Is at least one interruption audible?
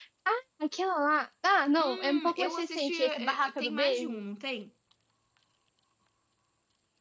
Yes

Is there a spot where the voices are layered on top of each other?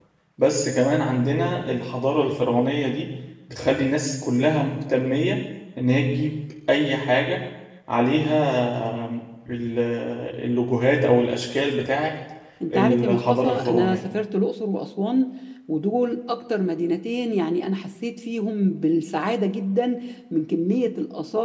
Yes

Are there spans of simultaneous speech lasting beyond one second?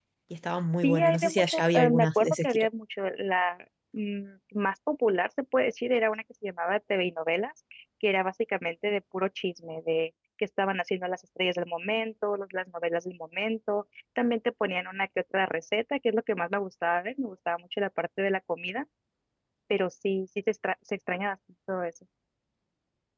Yes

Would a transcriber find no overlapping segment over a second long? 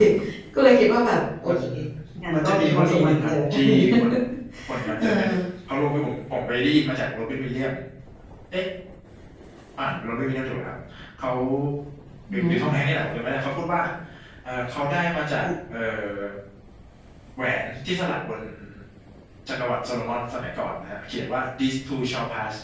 No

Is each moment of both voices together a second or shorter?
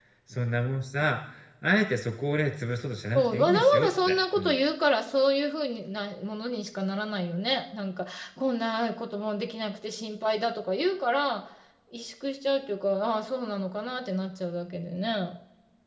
No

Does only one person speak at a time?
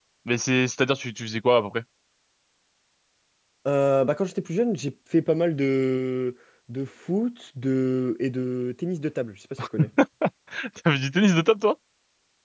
Yes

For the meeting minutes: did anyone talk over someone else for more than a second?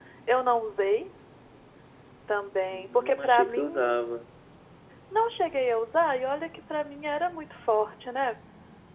Yes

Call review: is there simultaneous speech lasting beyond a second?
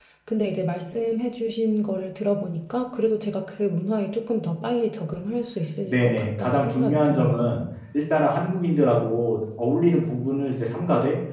Yes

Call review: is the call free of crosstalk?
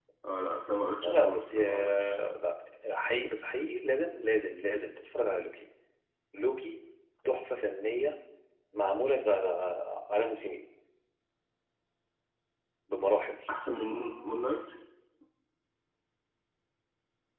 No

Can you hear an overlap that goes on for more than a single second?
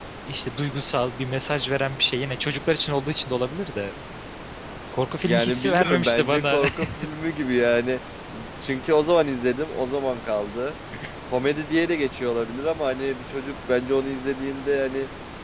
Yes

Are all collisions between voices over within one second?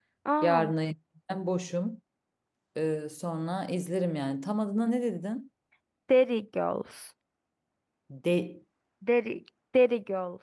Yes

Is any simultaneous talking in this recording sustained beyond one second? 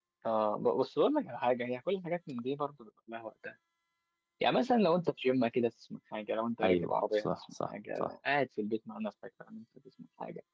Yes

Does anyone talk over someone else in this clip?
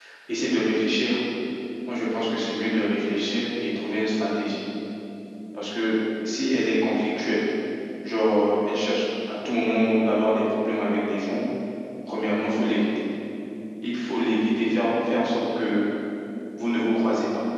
No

